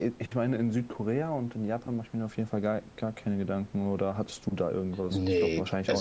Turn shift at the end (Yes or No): Yes